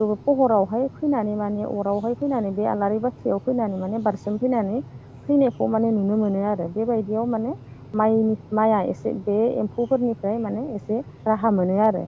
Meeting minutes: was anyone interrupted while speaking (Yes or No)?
No